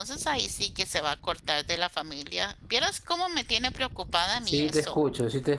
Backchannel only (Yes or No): No